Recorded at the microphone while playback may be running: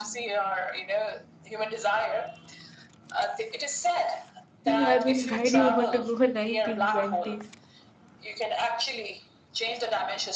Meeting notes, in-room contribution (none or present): present